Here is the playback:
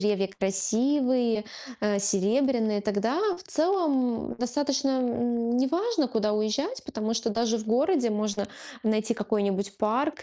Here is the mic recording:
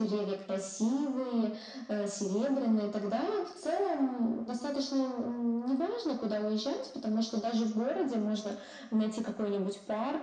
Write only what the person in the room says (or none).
none